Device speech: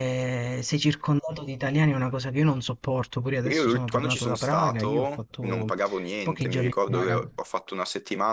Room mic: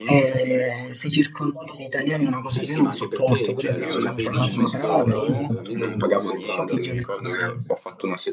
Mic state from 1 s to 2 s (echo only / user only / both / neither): echo only